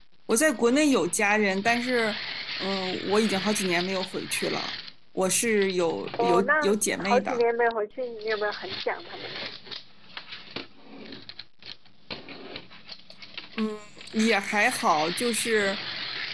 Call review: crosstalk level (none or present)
present